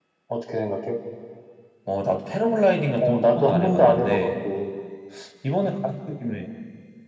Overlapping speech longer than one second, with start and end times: 3.0-4.3

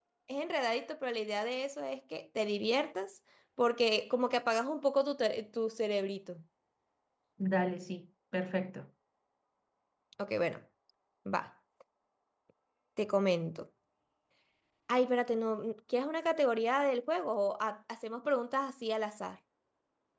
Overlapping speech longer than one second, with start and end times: none

